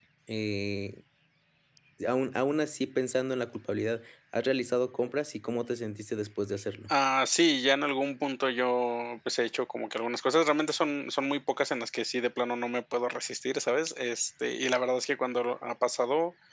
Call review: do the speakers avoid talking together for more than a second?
Yes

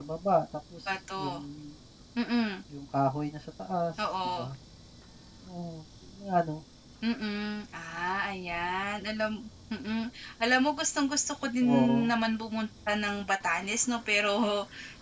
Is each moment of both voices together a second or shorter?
Yes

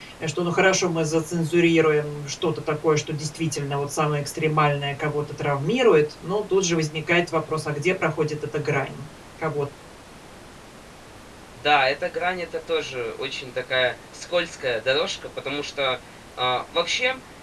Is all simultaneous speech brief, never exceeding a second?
Yes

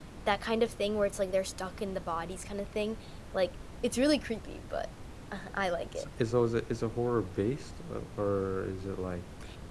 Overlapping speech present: No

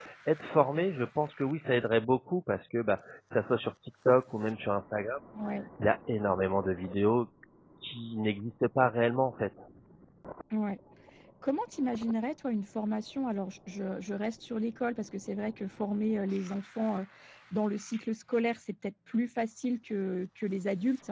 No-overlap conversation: Yes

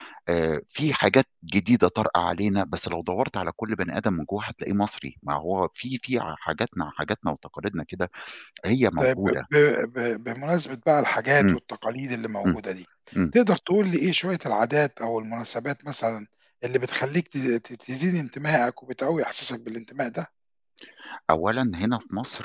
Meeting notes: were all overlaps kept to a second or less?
Yes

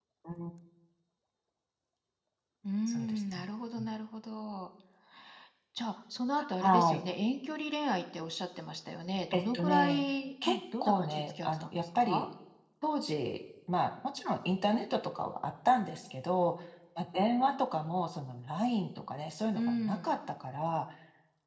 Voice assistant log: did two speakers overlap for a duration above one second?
Yes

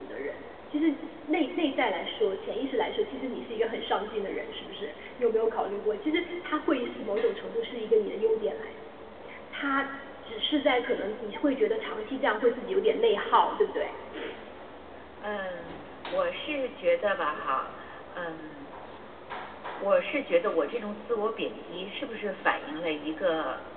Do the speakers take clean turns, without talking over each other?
Yes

